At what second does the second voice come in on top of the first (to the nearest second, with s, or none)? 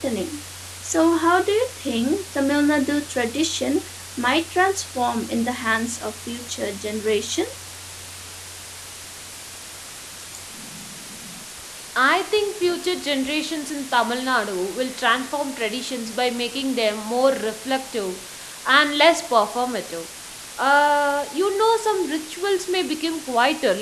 none